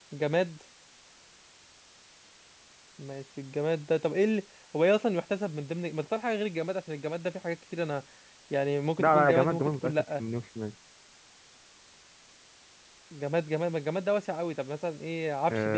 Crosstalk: present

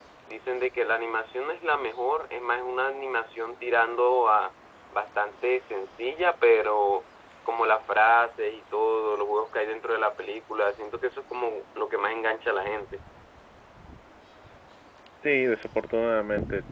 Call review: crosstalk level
none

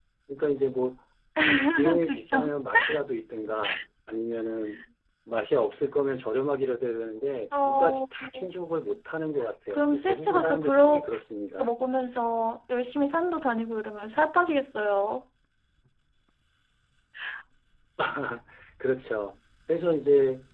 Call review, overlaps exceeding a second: present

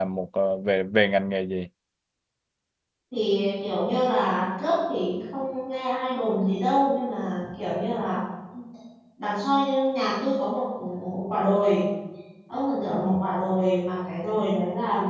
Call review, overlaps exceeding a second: none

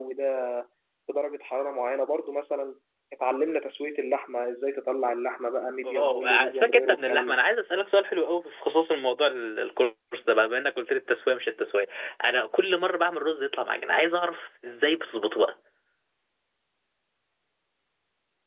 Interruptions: present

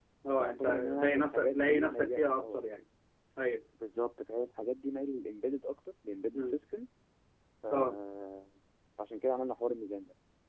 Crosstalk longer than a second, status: present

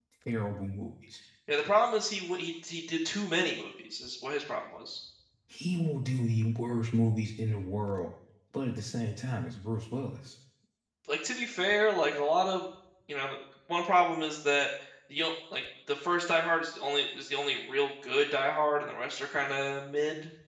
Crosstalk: none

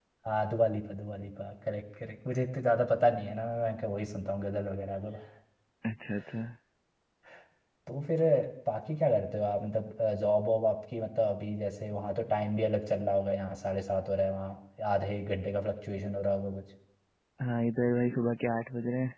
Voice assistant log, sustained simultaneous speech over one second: none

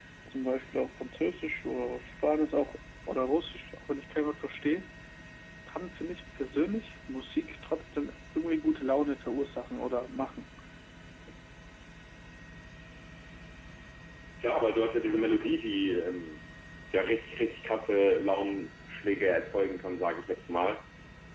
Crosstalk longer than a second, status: none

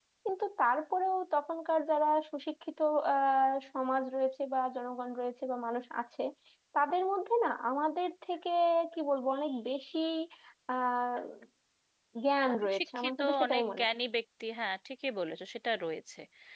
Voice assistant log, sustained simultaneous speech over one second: present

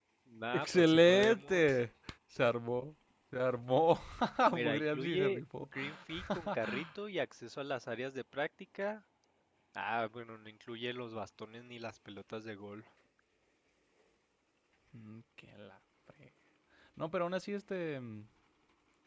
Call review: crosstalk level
present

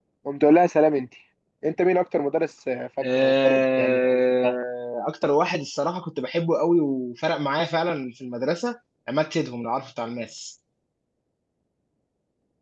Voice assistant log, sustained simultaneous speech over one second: present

